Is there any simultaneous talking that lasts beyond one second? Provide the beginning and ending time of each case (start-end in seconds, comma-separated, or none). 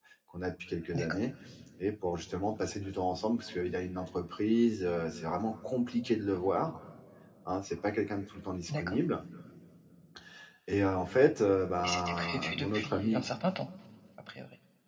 11.8-13.3